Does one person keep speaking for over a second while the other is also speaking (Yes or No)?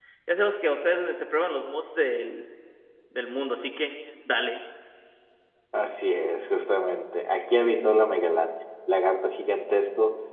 No